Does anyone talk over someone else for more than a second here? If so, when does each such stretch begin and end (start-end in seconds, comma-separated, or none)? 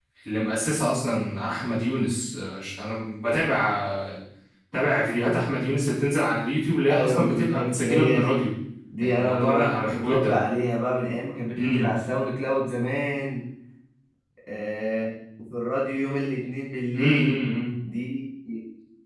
6.9-8.4, 9.0-10.4